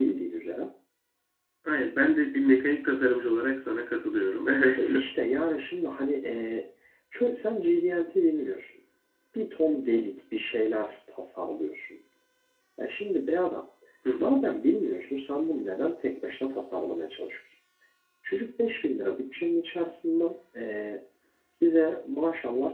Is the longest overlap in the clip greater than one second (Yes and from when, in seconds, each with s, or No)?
No